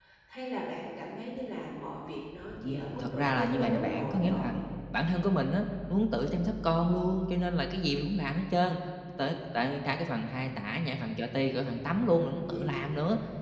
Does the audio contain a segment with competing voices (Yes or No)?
Yes